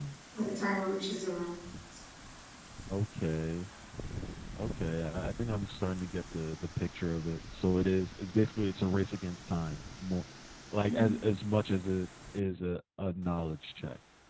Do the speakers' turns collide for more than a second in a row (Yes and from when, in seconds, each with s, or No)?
No